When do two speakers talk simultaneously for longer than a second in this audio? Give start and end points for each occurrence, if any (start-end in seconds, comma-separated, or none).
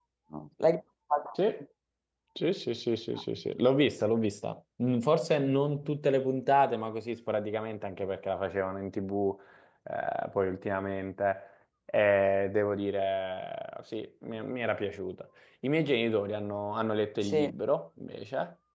none